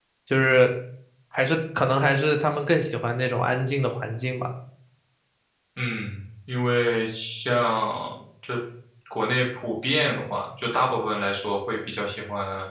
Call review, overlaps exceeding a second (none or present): none